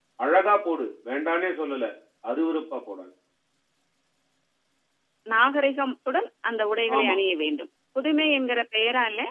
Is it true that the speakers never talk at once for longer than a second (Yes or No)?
Yes